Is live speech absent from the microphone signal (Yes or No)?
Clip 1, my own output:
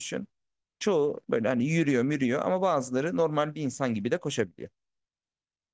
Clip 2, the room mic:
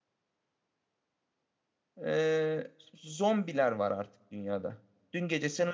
No